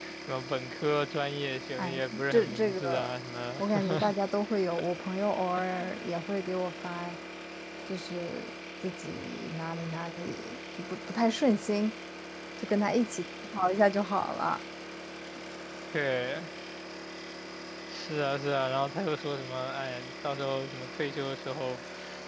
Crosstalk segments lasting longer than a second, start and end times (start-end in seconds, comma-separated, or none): 1.8-3.1